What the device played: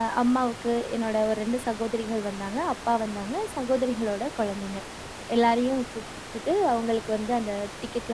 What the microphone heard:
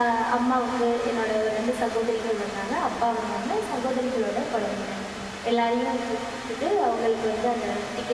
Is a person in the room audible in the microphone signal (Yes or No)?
No